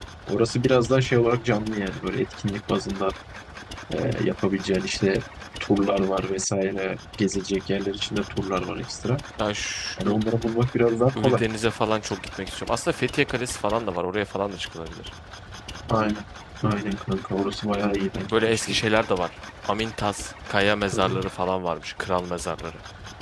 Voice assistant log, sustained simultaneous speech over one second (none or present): none